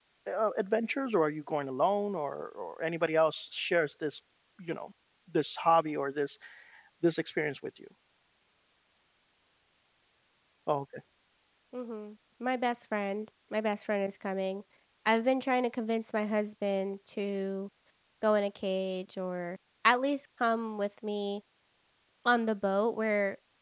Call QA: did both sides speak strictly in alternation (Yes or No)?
Yes